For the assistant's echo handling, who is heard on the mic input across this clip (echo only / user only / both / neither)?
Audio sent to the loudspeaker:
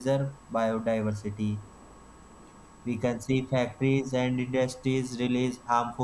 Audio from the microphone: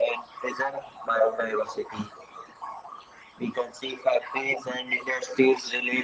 echo only